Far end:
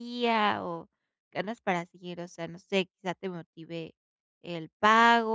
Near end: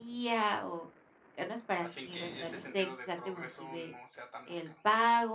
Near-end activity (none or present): present